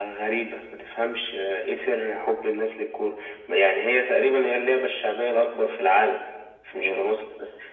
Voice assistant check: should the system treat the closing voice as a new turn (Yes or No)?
No